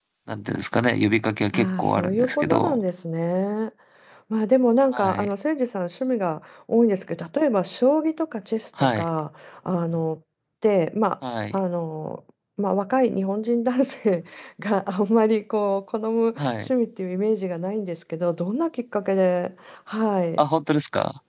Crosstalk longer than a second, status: present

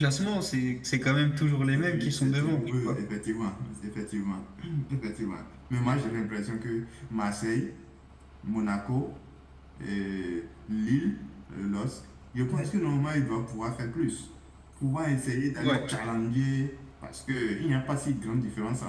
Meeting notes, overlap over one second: present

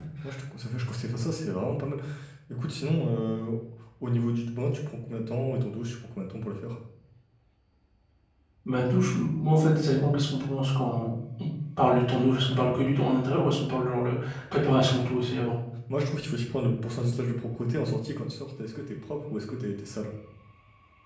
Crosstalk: none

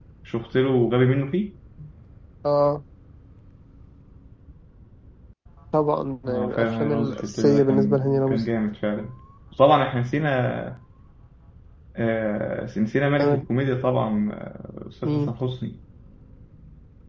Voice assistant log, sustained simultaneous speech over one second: present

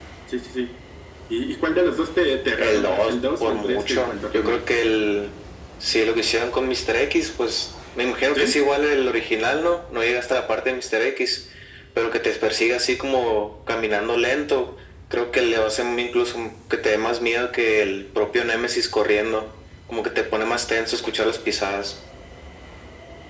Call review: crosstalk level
present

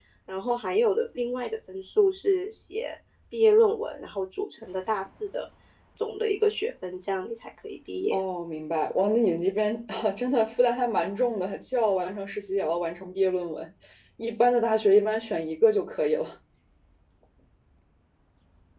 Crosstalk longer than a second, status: none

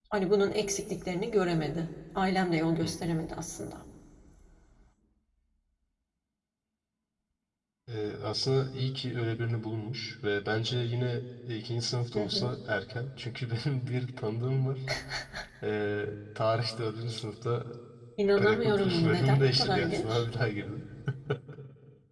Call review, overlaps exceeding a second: present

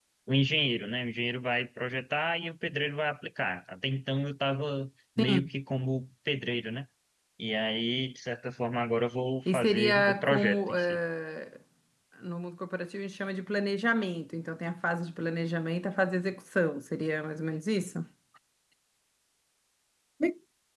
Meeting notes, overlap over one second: present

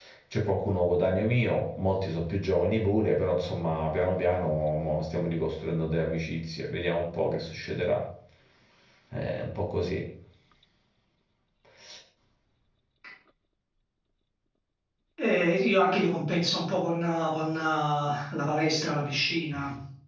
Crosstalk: none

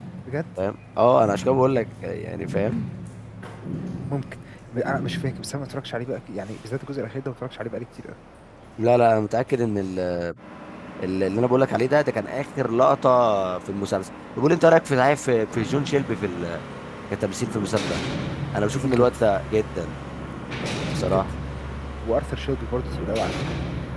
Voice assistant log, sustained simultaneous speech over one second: none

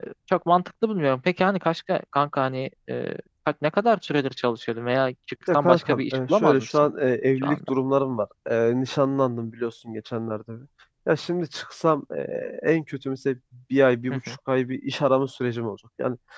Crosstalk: present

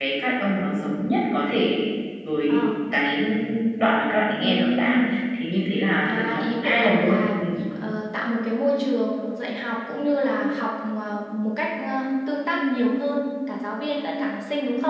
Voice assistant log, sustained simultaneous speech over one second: present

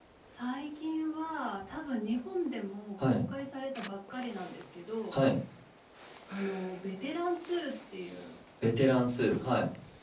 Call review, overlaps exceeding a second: none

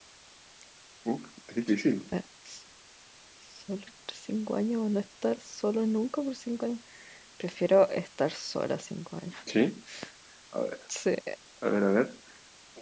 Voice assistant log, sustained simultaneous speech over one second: none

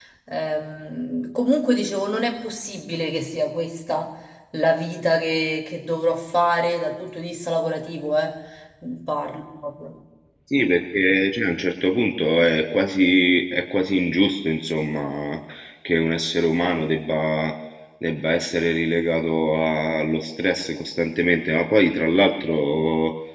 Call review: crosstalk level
none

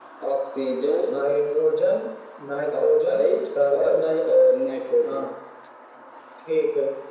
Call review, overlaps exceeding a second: present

